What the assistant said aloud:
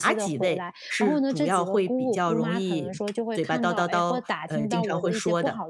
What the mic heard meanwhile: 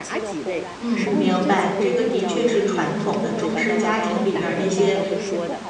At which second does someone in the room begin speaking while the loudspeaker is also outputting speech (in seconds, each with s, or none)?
0.8 s